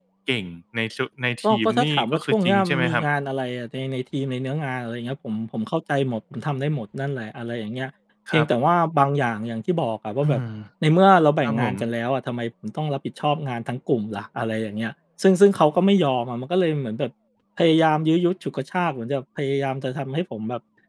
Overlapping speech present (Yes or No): Yes